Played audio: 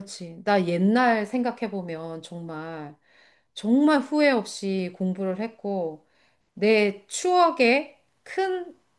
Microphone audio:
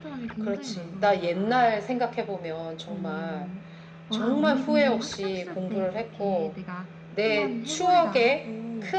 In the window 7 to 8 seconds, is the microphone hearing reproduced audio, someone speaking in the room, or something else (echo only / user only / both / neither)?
both